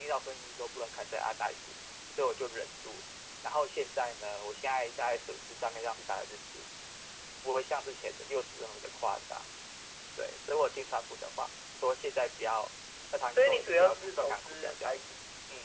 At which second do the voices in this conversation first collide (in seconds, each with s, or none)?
13.3 s